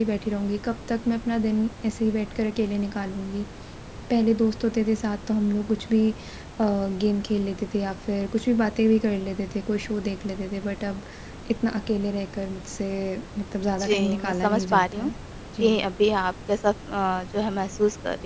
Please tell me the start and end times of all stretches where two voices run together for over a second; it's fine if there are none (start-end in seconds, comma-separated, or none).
13.8-15.1